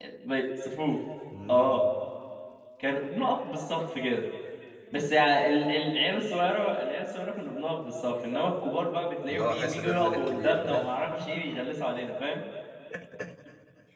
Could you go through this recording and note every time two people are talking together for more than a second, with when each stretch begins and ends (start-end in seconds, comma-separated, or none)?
9.3-10.8